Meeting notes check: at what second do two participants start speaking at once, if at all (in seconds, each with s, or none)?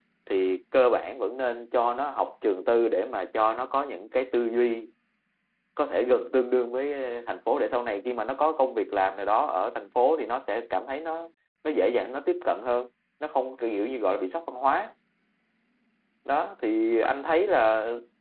none